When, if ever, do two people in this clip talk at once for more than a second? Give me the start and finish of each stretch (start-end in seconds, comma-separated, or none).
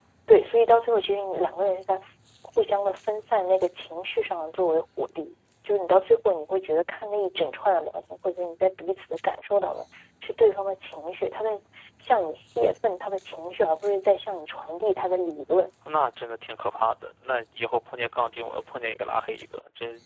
none